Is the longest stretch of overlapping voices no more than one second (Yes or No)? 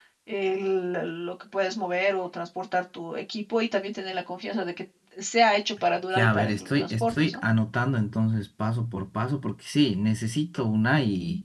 No